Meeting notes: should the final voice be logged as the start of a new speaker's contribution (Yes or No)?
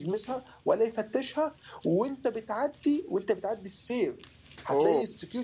No